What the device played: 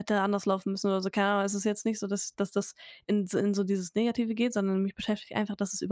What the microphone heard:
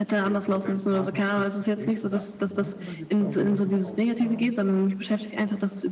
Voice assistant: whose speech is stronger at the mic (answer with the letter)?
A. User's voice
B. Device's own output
B